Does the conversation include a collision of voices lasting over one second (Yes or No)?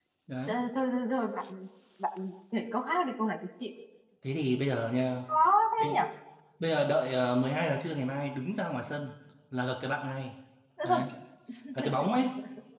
No